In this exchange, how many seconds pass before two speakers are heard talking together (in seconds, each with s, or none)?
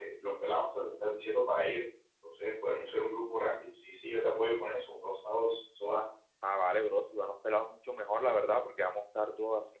none